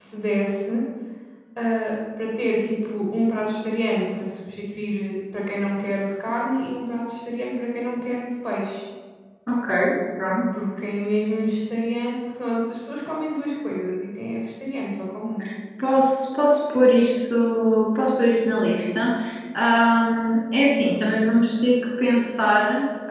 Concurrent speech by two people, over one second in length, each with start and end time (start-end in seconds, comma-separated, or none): none